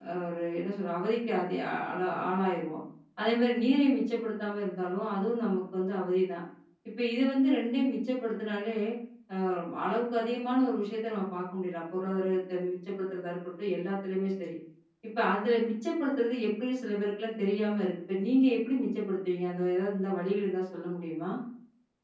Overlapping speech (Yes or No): No